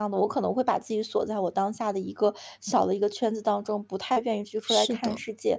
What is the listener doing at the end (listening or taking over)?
listening